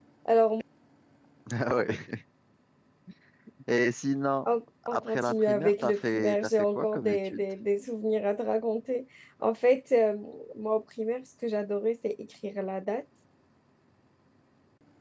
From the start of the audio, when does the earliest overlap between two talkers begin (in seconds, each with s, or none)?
4.9 s